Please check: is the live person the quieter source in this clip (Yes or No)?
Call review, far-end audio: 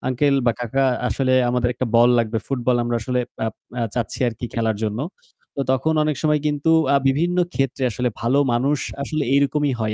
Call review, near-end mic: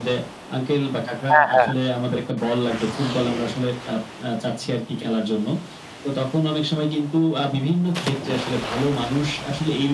No